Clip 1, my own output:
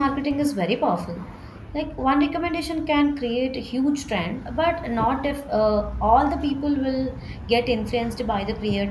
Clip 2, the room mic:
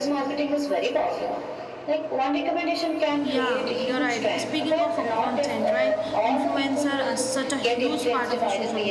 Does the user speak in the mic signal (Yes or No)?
Yes